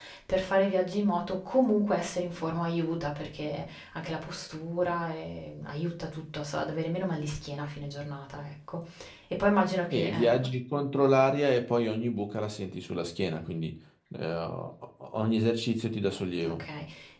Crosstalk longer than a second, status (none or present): none